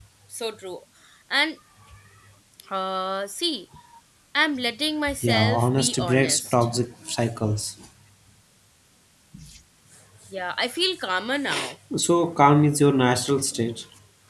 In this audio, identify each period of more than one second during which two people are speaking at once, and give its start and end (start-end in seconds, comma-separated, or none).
5.2-6.5